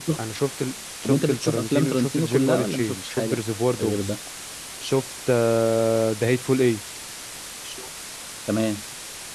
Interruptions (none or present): present